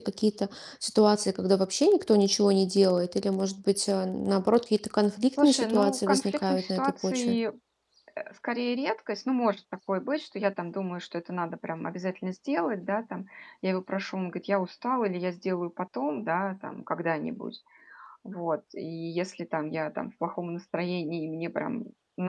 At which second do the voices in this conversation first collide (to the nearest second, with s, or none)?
5 s